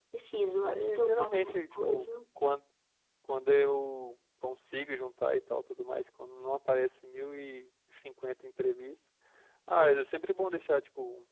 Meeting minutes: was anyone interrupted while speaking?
Yes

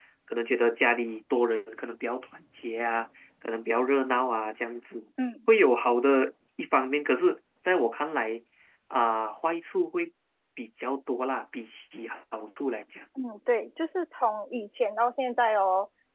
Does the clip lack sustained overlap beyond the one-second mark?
Yes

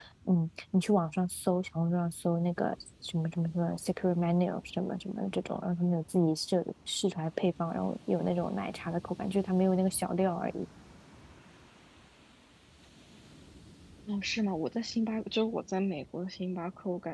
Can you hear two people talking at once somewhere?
No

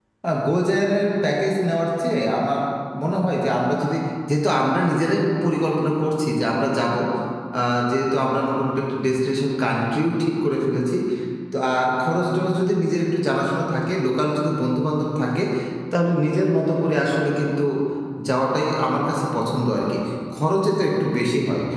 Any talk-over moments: No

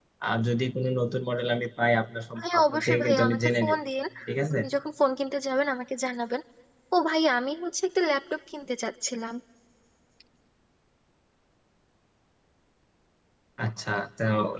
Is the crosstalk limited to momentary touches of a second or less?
No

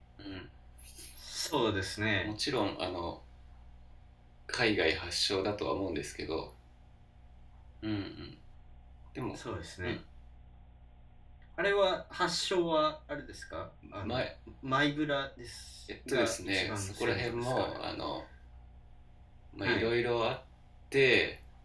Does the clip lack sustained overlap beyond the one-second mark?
No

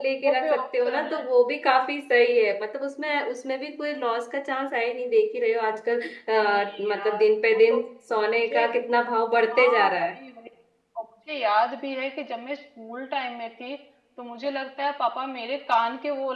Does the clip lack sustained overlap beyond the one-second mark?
No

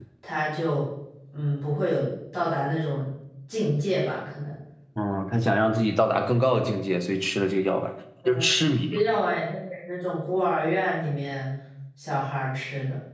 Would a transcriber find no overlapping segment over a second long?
Yes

